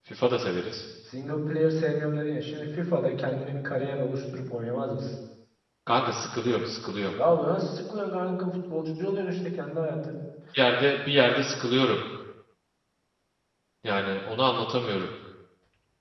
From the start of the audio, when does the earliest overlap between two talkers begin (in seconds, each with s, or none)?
none